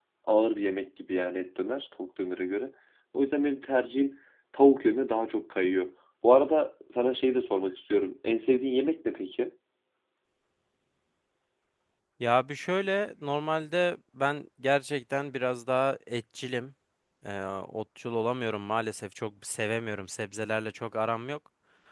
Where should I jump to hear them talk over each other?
none

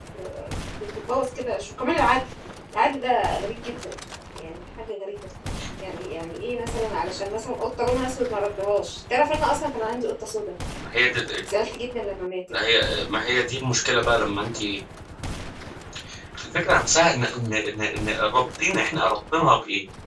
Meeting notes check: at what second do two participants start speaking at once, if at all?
none

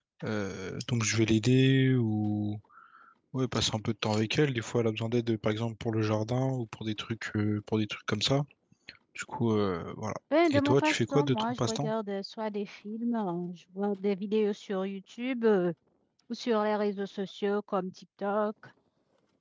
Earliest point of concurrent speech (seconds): 10.3 s

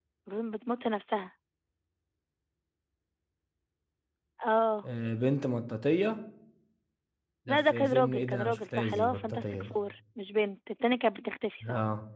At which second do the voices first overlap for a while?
7.5 s

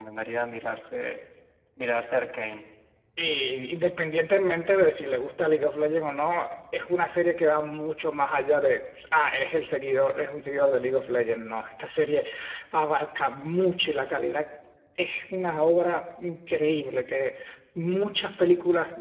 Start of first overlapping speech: none

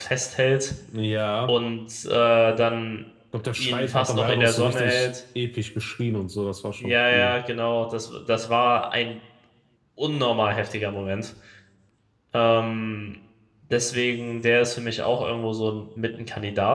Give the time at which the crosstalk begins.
3.6 s

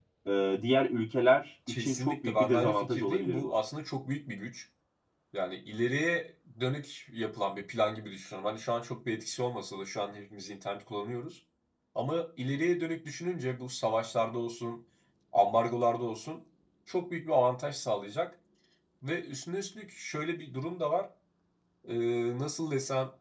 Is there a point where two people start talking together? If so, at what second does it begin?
1.7 s

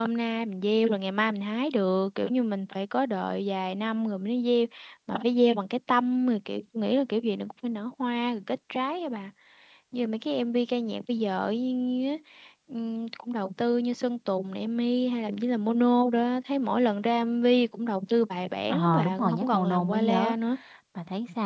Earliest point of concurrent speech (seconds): 18.7 s

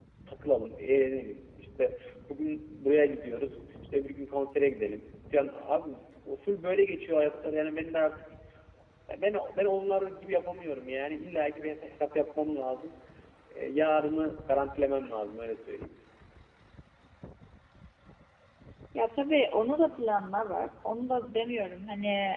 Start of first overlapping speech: none

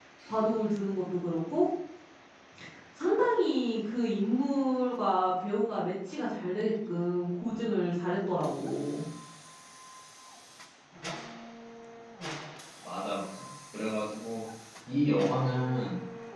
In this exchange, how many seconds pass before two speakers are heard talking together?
none

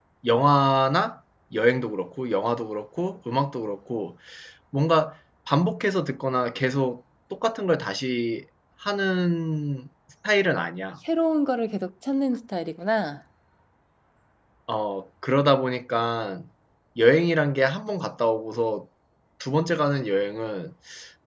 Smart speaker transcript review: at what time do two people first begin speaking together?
none

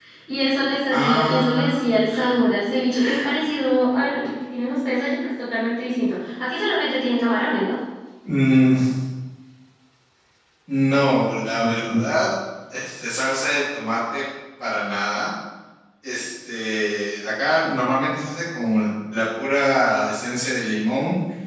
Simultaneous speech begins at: 0.9 s

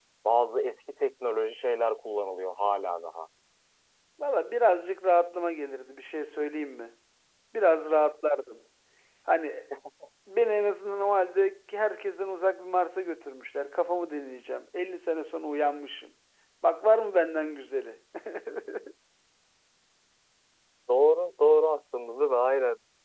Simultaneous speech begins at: none

